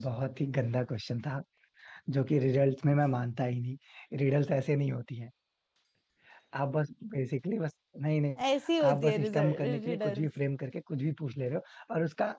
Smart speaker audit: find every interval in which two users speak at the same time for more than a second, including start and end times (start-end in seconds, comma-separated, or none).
8.9-10.3